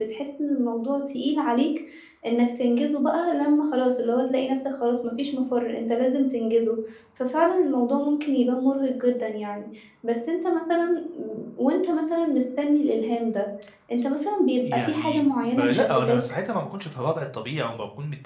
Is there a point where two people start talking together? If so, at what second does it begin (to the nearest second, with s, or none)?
15 s